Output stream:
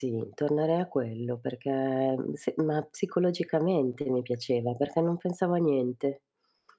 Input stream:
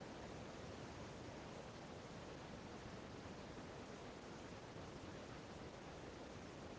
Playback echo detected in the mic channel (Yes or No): No